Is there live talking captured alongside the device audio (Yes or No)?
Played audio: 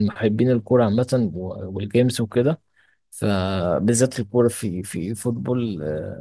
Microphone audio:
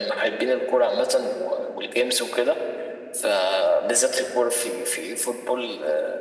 No